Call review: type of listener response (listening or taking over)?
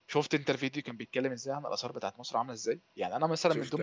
listening